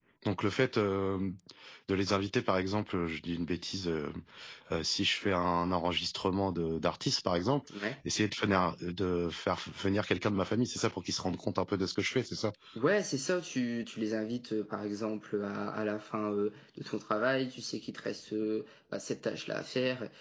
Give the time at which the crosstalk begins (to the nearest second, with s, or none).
none